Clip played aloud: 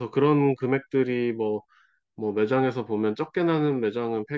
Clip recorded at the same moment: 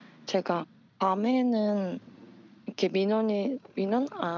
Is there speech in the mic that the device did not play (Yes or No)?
Yes